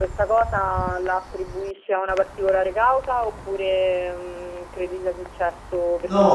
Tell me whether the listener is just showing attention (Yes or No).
No